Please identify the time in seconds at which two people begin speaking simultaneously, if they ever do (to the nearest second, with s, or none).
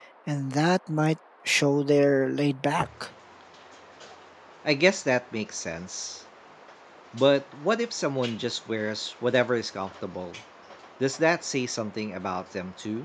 none